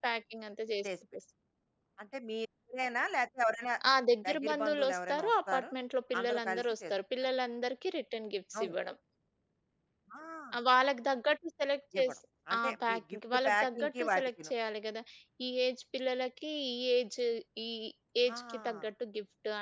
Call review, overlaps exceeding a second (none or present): present